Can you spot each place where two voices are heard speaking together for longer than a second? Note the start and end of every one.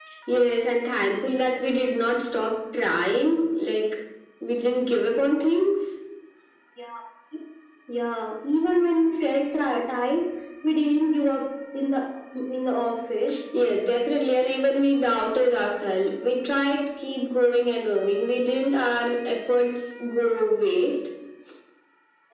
none

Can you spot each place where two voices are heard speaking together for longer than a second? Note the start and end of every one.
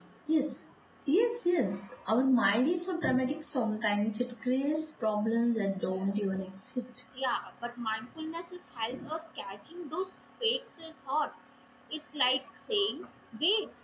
none

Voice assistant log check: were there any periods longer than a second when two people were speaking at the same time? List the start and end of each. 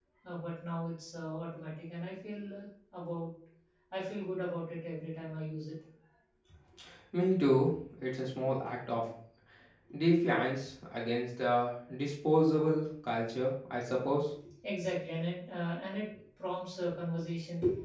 none

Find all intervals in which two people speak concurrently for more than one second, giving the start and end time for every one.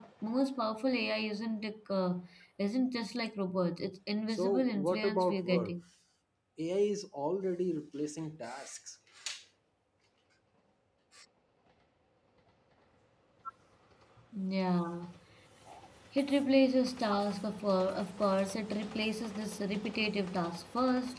4.3-5.7

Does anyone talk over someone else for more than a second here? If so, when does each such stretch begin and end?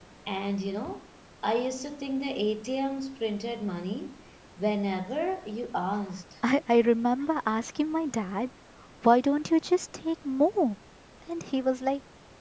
none

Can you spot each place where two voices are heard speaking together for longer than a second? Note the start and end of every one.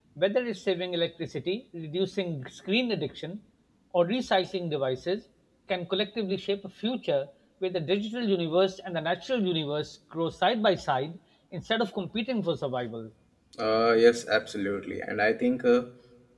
none

